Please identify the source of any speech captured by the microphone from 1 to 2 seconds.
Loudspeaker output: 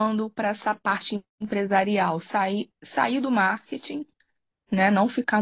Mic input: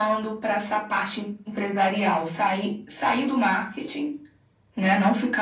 echo only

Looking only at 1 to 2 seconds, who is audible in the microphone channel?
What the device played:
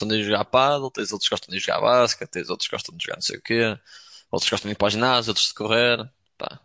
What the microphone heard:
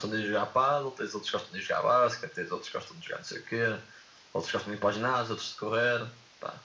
echo only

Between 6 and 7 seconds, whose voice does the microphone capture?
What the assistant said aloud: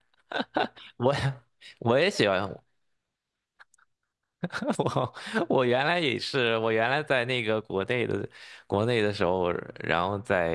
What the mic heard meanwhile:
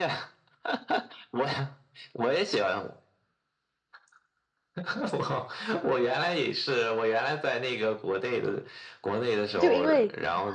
echo only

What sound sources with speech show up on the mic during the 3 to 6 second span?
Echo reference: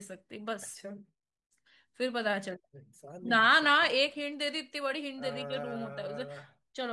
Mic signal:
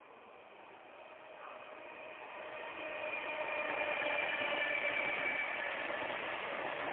neither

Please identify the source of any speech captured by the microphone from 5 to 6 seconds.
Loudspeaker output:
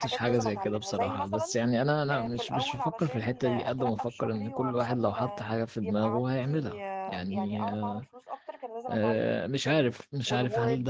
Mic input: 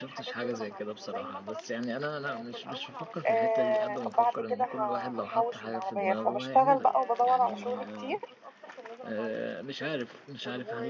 both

